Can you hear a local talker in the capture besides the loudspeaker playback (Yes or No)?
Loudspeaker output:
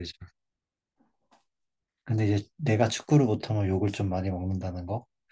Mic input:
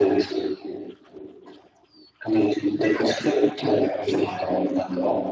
No